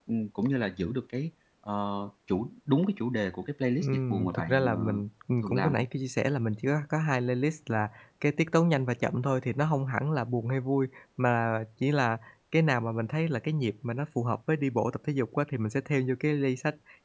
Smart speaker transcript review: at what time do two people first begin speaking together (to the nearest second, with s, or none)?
4 s